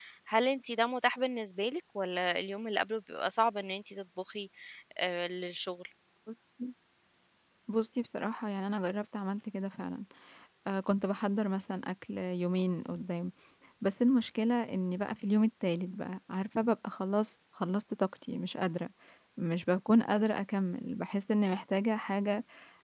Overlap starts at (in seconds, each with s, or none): none